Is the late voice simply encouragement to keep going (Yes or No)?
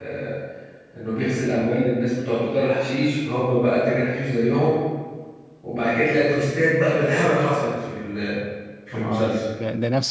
No